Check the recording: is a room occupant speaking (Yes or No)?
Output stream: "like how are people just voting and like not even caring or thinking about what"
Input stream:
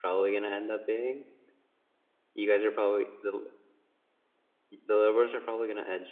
Yes